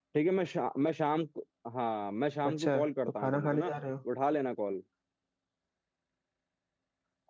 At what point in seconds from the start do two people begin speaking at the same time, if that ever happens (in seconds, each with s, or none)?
2.4 s